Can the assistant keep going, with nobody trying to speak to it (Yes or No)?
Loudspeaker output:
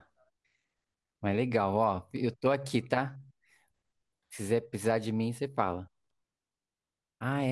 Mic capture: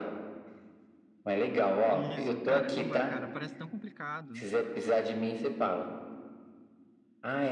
No